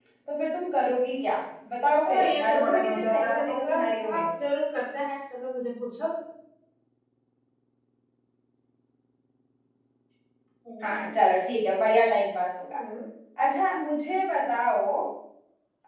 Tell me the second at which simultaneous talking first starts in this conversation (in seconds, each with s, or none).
2.0 s